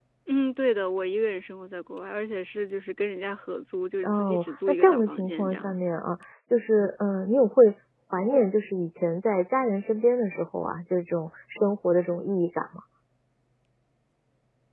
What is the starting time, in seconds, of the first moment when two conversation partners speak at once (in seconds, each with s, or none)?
4.0 s